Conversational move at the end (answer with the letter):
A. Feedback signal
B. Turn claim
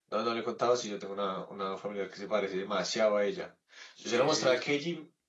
A